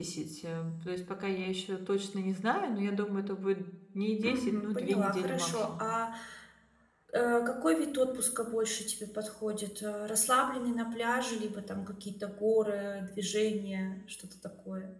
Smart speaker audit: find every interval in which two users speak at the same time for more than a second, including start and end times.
4.2-5.9

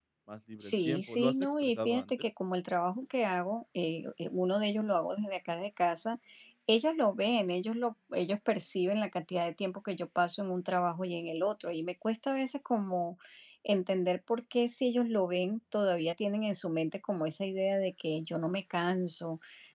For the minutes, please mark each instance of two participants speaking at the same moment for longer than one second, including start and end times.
0.6-2.3

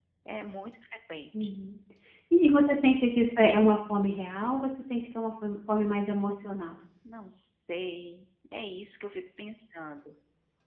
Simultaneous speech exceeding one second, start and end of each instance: none

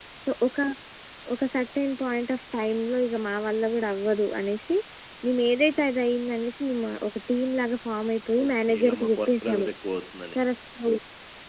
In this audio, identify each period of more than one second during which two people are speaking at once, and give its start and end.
8.4-9.7

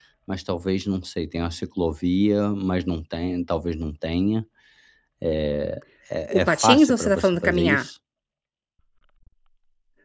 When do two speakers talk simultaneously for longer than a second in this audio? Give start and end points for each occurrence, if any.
6.3-7.9

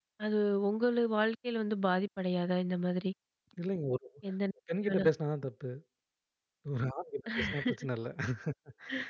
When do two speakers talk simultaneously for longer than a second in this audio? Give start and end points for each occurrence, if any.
none

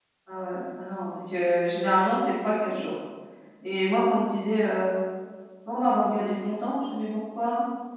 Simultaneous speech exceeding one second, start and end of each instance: none

